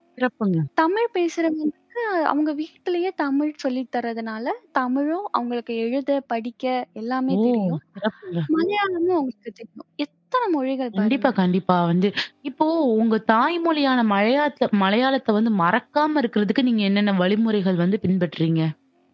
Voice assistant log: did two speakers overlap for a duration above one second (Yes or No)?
No